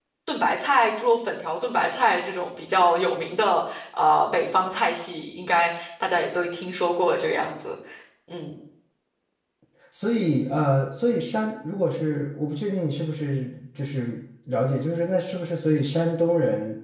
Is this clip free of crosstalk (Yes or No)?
Yes